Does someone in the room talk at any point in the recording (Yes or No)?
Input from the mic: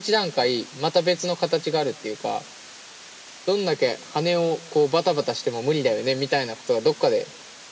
No